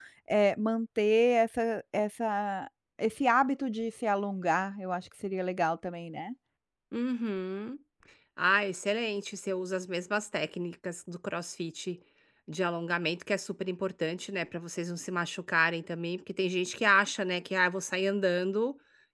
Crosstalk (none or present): none